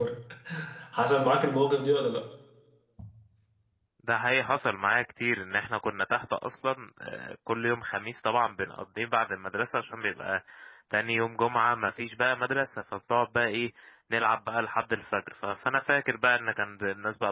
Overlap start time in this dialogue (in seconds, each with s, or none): none